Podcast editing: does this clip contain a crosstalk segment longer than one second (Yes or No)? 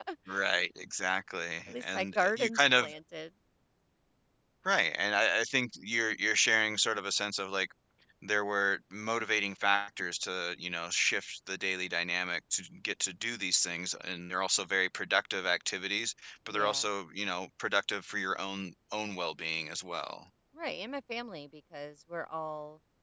Yes